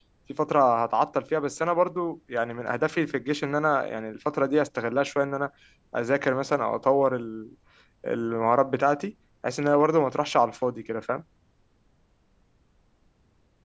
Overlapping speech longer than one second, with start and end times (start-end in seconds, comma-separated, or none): none